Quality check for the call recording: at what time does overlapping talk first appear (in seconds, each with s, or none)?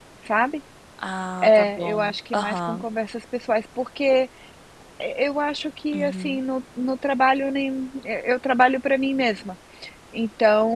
1.4 s